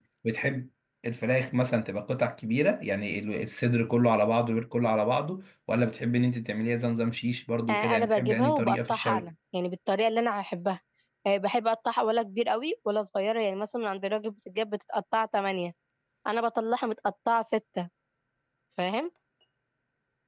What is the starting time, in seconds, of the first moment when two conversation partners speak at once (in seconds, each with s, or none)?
7.7 s